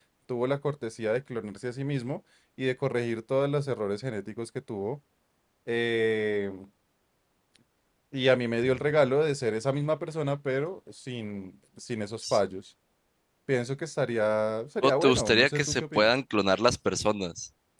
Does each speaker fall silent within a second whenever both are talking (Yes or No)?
No